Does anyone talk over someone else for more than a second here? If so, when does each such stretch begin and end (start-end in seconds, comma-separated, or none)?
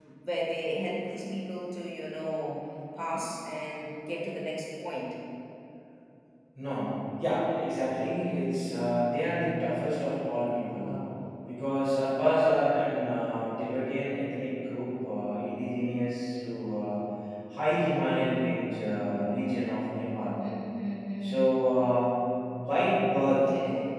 none